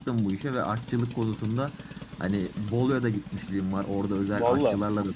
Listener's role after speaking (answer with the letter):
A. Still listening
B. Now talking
A